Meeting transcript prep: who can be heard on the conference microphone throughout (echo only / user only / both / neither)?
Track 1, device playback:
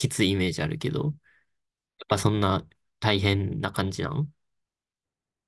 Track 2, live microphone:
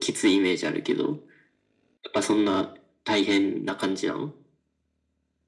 echo only